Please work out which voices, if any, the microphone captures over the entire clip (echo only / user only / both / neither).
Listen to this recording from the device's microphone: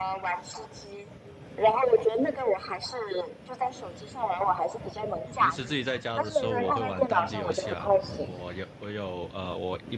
both